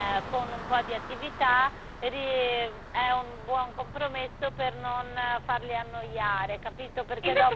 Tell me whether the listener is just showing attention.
No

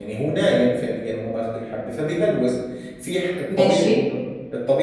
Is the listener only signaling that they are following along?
Yes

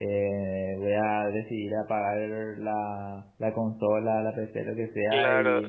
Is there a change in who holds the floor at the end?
Yes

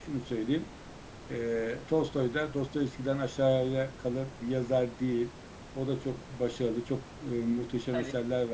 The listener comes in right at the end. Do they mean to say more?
No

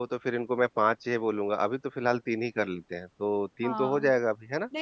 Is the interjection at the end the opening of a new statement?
Yes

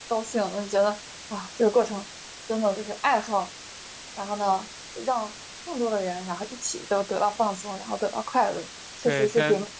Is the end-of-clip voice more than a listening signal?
Yes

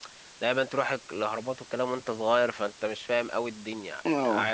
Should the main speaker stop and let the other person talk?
Yes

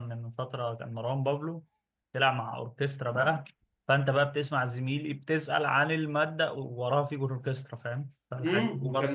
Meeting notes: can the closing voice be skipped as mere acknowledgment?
No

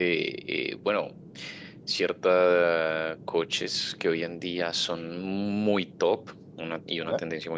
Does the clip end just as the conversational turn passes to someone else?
No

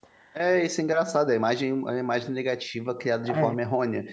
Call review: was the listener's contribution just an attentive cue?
Yes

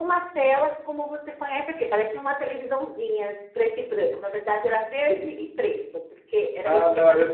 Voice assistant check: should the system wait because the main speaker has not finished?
No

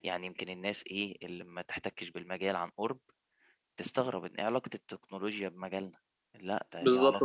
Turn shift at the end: Yes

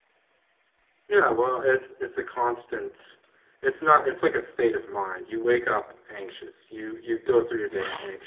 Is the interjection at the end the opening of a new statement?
No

